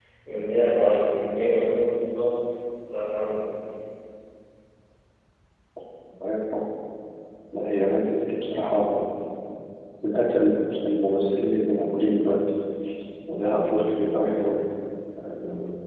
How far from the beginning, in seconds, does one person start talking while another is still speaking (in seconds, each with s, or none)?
none